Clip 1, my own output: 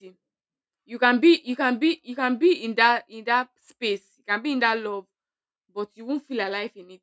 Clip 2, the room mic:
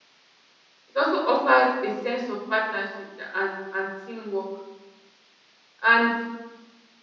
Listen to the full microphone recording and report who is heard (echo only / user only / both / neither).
user only